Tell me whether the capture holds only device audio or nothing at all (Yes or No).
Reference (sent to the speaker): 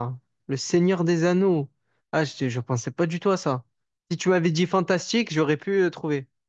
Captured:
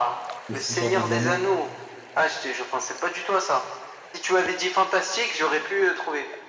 No